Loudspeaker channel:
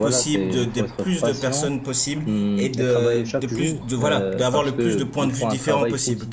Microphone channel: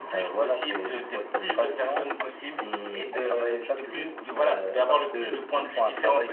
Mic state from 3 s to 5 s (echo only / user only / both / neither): echo only